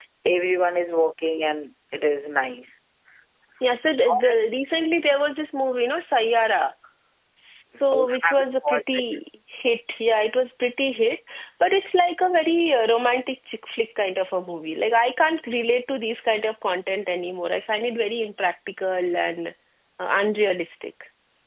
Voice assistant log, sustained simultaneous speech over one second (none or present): present